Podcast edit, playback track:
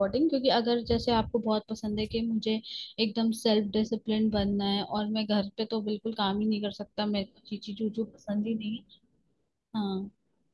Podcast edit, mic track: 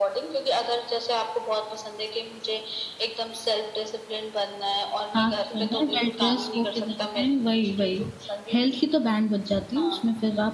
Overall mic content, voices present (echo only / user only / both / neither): both